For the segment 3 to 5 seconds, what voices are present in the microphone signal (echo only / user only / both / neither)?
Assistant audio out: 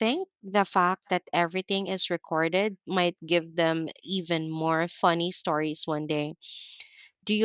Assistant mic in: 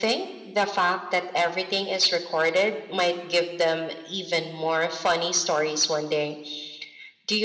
echo only